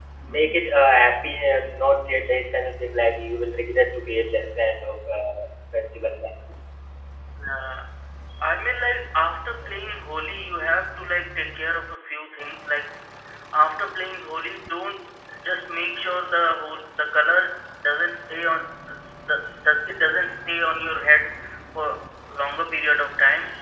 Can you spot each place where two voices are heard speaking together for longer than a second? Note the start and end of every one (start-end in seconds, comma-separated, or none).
none